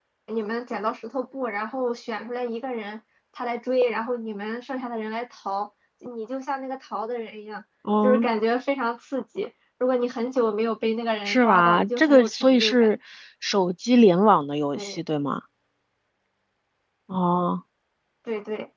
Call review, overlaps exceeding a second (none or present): present